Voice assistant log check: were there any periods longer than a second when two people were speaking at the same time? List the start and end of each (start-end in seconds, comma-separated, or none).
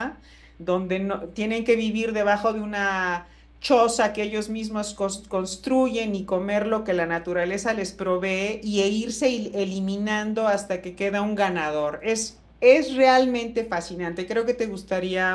none